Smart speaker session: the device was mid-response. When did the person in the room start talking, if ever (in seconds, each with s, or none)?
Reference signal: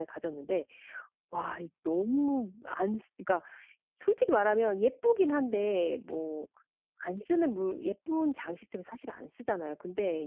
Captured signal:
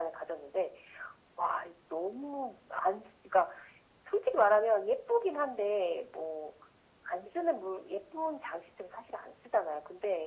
none